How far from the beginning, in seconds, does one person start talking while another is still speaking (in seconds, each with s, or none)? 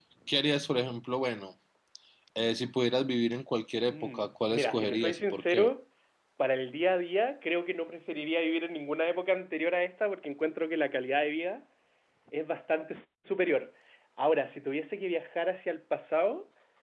3.9 s